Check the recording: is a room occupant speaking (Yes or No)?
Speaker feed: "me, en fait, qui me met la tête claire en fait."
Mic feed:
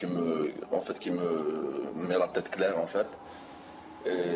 No